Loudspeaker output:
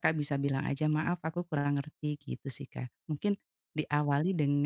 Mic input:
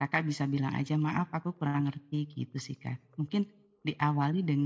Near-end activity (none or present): none